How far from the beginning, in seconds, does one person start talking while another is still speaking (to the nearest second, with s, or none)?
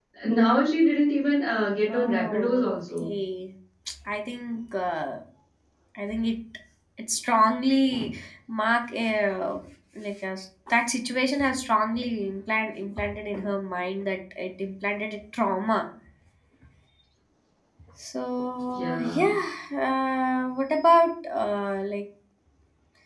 2 s